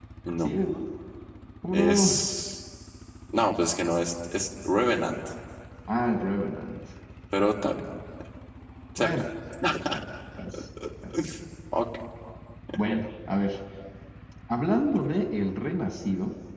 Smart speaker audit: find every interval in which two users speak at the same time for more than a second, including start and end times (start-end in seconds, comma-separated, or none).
none